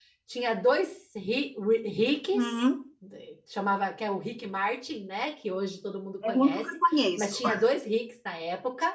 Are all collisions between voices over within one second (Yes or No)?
Yes